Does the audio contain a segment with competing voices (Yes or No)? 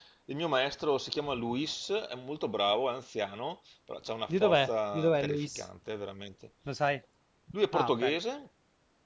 Yes